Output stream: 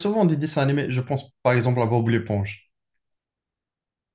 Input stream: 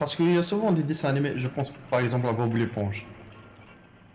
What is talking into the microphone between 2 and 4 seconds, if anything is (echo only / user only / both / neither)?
echo only